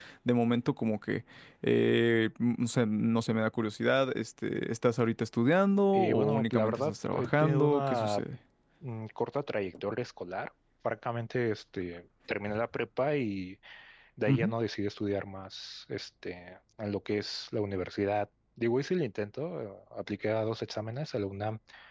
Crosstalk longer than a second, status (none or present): present